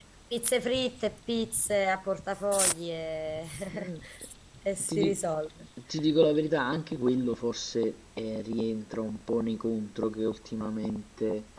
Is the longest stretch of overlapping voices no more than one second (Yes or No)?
Yes